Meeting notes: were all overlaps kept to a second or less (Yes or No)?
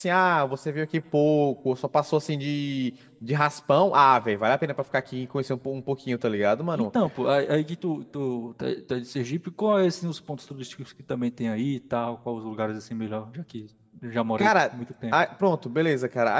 Yes